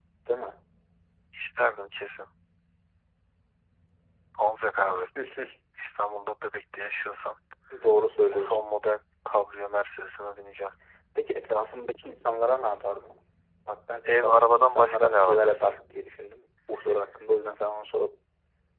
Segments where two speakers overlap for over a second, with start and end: 14.1-15.7

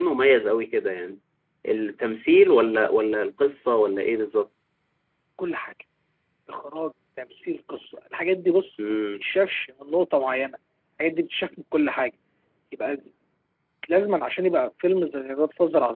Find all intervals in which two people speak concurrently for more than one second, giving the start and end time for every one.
none

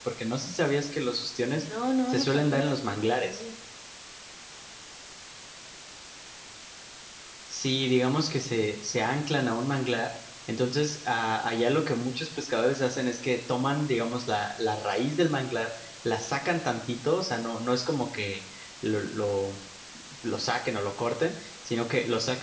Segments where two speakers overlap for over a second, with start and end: 2.1-3.4

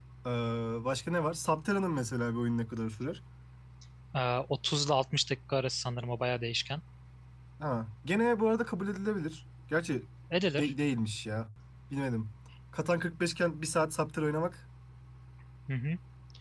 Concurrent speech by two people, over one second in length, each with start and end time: none

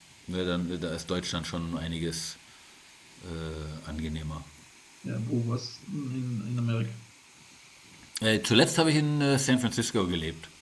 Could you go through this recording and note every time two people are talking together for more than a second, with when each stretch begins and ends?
none

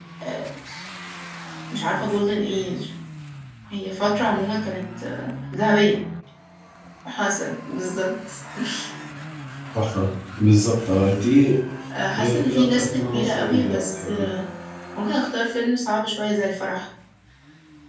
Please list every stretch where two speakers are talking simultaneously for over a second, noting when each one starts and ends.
12.2-14.3

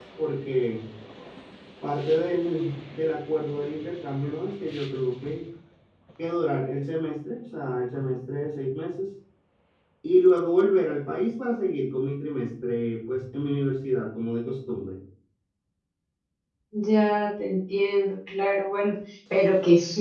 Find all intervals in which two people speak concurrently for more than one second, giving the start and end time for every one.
none

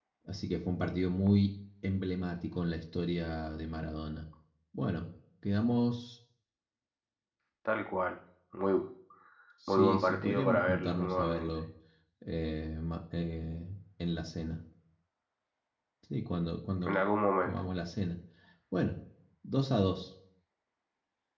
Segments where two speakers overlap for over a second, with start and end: 9.7-11.5

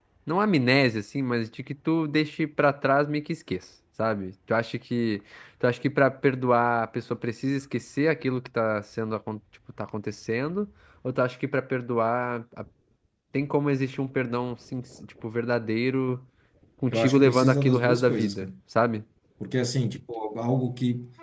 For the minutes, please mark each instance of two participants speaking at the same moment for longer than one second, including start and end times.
16.9-18.5

